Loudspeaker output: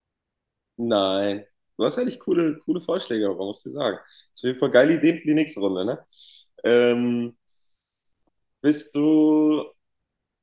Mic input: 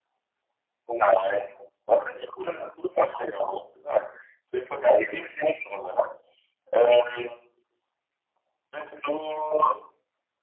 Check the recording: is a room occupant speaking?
No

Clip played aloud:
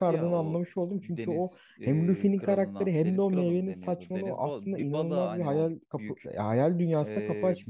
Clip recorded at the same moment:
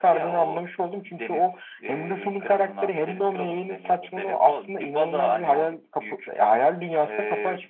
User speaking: No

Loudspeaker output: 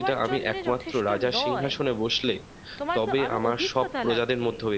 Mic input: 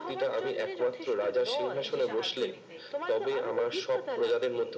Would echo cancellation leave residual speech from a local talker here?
Yes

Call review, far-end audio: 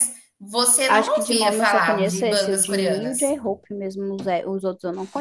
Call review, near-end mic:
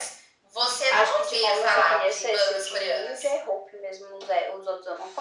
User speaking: No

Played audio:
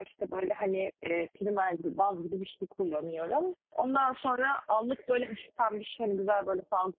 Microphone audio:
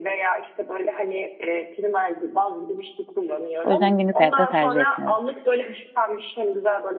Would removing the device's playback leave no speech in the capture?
No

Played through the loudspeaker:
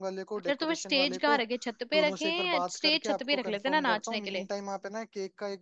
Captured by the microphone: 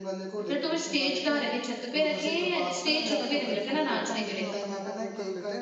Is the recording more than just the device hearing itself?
Yes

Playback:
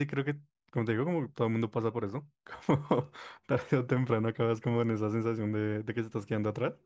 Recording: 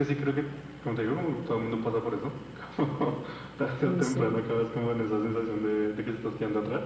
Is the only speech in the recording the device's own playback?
No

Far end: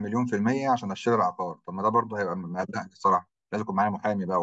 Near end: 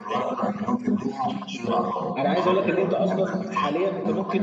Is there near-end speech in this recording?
Yes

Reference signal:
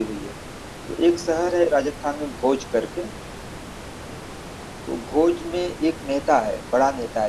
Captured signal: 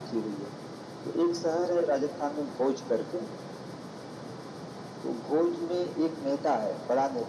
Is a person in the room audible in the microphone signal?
No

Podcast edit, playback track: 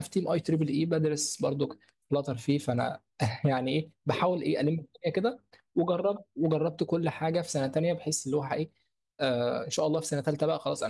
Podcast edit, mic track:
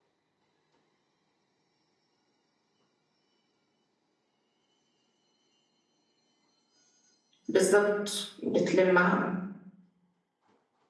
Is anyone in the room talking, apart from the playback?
Yes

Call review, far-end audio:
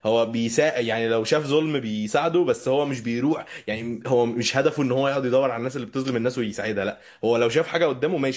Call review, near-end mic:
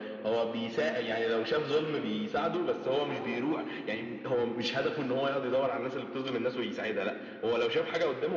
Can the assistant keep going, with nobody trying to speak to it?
No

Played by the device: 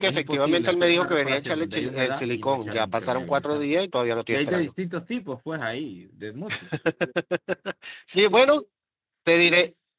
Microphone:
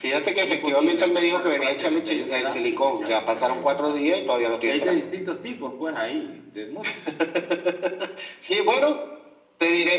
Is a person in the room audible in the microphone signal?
No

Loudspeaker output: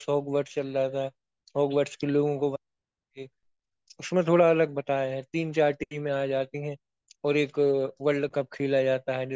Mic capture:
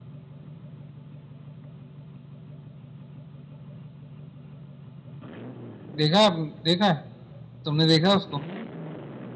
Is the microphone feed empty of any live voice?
No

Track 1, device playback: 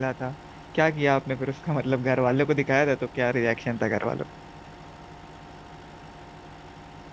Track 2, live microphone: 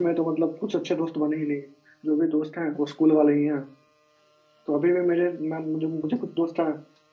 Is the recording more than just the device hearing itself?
Yes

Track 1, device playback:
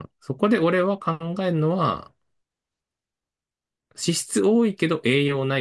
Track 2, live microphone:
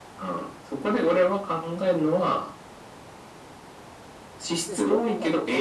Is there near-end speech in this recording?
Yes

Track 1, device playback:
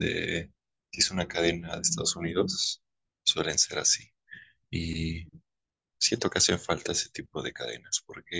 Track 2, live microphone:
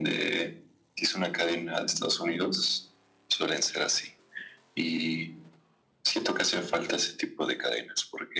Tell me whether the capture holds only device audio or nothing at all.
Yes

